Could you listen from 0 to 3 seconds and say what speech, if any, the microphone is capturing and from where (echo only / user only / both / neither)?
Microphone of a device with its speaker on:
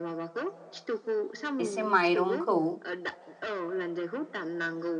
both